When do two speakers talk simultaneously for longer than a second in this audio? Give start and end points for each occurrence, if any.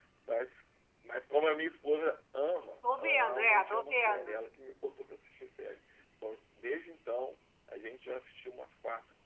3.0-4.4

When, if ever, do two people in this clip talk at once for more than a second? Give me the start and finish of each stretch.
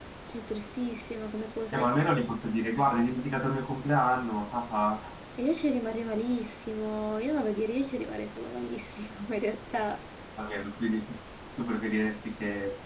none

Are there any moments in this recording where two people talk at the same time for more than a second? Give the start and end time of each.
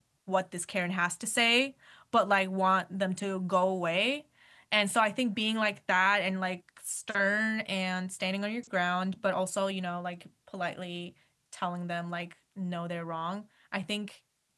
none

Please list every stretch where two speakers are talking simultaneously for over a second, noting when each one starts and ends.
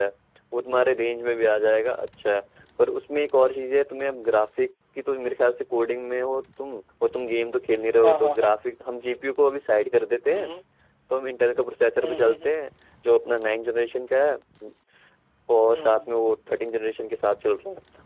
none

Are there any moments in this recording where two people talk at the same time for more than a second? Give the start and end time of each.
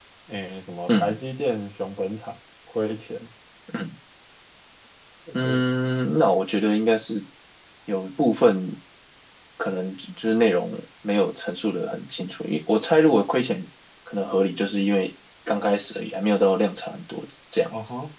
none

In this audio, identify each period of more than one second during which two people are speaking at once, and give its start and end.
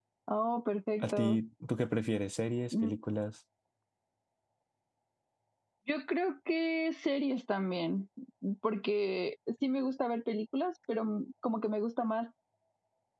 none

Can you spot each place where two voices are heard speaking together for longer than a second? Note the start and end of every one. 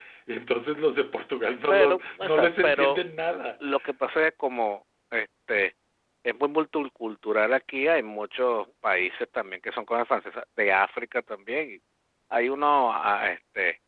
1.7-3.0

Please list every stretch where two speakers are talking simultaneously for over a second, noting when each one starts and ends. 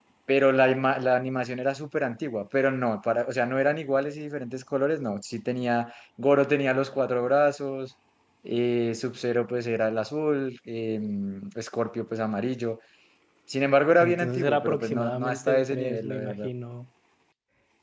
14.0-16.5

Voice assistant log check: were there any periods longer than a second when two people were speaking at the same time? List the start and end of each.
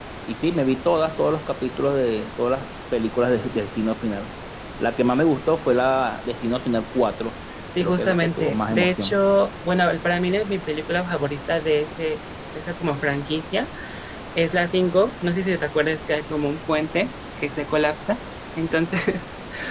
7.8-9.2

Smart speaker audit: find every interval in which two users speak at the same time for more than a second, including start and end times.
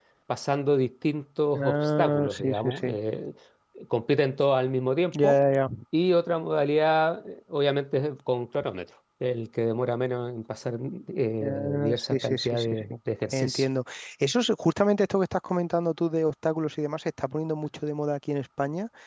1.6-3.0, 11.4-12.8

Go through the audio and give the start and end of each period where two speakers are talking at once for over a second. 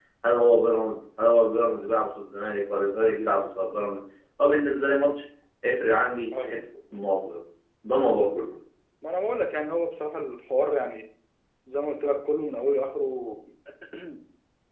none

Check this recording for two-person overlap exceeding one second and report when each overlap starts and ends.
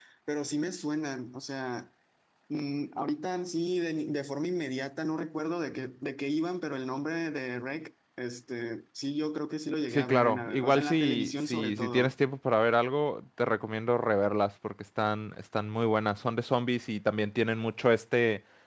9.9-12.1

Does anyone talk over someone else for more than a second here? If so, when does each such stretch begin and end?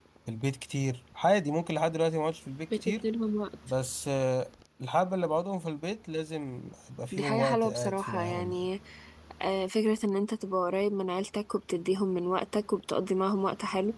7.1-8.7

